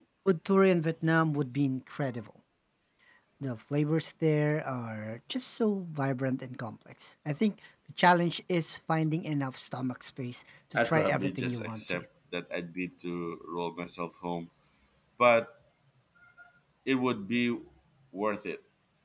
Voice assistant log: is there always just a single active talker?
No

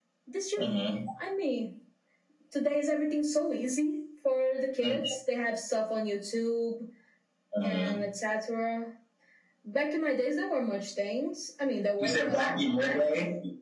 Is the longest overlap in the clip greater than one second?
Yes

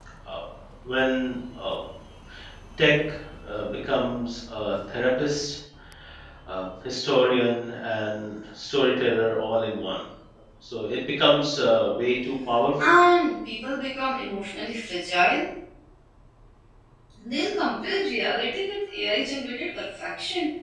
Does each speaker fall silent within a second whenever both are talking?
Yes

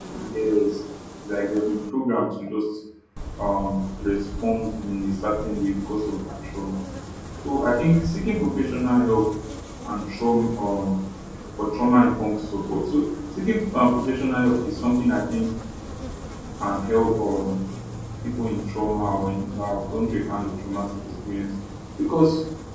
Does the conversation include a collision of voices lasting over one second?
No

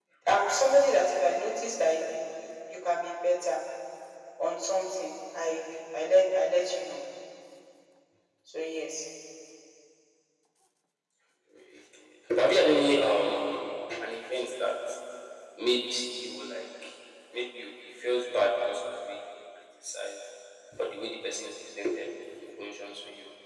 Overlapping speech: No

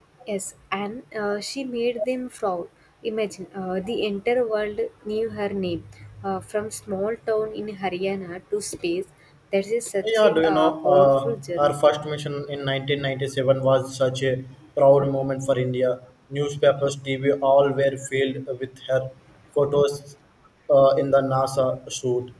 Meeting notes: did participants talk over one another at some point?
Yes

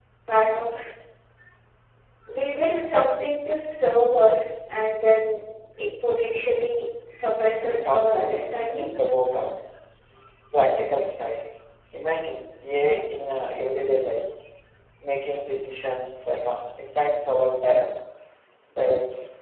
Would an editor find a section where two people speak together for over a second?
Yes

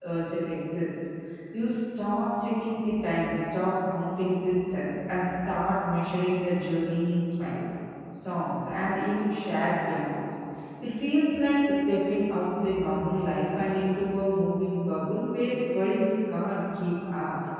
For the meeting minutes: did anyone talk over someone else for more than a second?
No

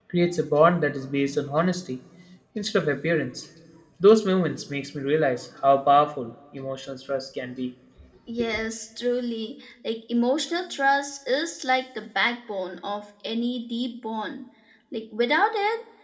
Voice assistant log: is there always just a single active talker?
Yes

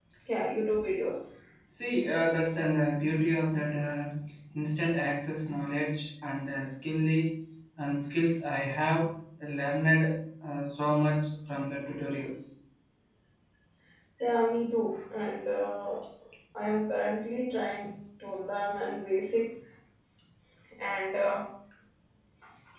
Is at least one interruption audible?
No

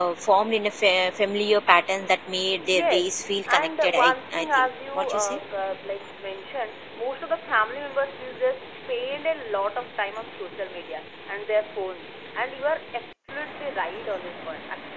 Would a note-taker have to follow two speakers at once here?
Yes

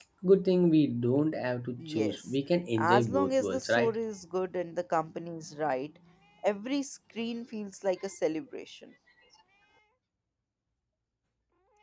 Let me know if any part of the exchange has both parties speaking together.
Yes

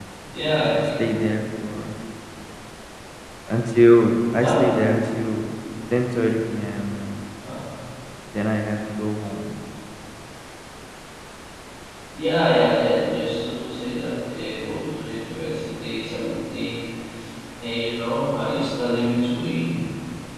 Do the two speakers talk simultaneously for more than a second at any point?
No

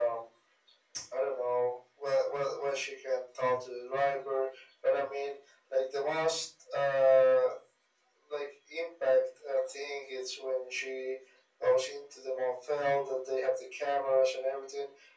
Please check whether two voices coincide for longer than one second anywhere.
No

